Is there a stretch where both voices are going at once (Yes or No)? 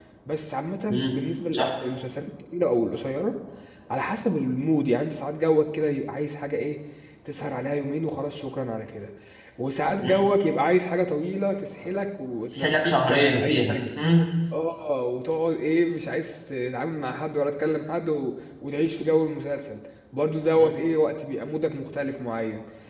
Yes